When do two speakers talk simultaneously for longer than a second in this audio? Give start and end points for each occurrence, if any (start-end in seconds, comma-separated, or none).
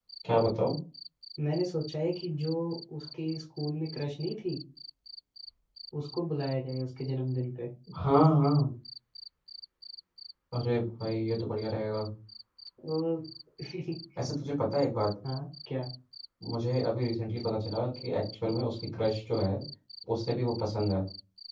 none